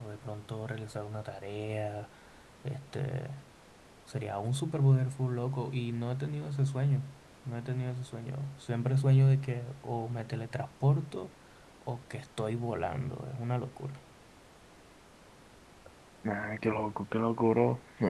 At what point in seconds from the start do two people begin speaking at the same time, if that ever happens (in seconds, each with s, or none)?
none